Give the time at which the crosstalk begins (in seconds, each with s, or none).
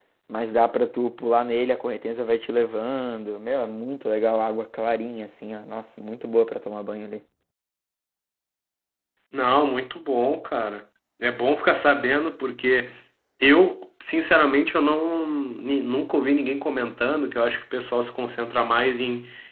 none